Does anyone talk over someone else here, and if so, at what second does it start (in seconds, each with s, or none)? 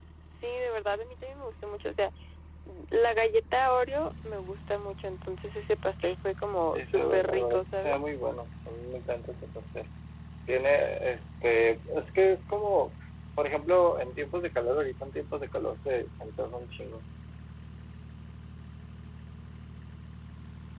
6.7 s